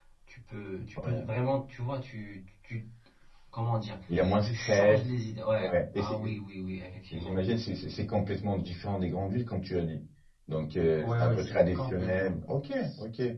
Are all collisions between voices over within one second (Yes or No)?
No